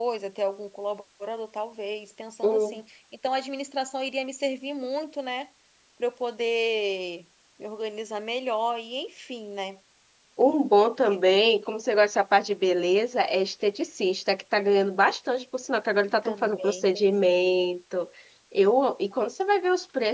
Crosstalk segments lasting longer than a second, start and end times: 16.2-17.6

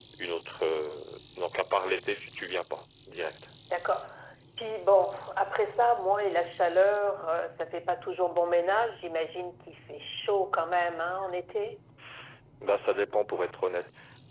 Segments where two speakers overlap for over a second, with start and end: none

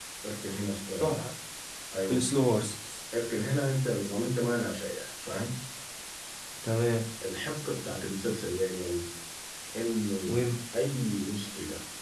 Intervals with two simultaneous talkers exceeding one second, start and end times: none

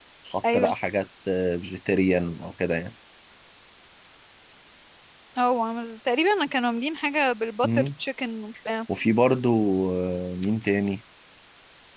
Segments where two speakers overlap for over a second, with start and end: none

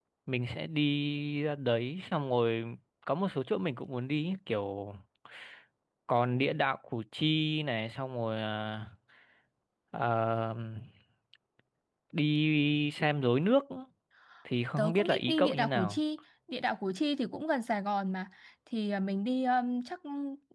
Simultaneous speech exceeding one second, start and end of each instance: 14.8-16.0

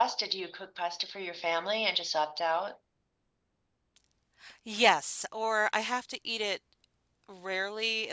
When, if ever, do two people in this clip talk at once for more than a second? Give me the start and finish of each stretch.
none

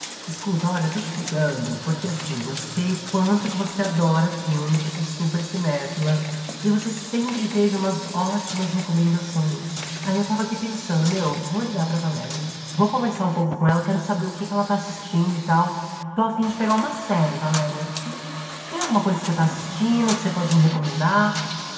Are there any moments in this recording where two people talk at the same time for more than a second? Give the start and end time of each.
none

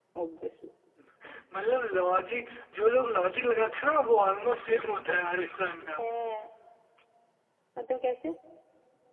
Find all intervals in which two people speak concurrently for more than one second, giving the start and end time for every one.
none

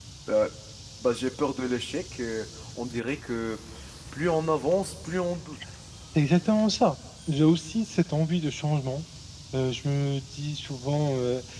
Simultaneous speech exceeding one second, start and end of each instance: none

